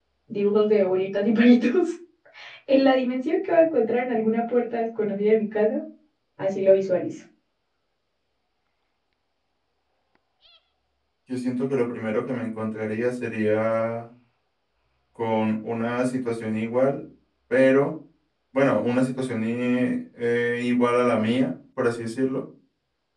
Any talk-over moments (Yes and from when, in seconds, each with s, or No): No